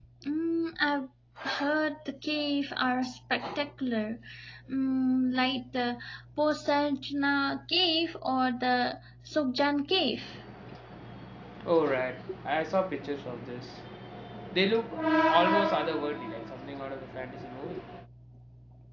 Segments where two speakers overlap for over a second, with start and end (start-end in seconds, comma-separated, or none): none